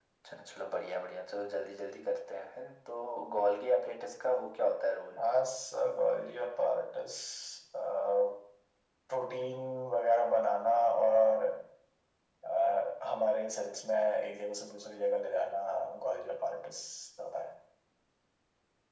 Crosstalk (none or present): none